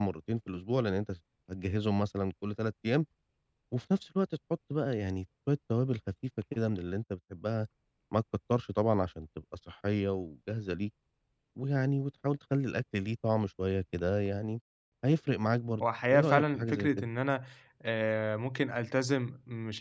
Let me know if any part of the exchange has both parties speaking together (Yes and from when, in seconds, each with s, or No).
Yes, from 15.8 s